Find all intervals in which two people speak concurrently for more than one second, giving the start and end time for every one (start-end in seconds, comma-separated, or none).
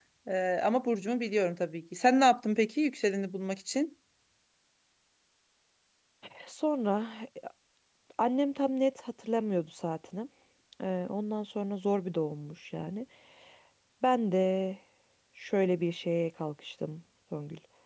none